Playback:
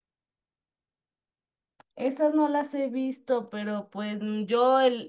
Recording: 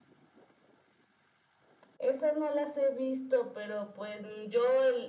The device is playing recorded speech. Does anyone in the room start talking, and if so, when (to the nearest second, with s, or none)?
none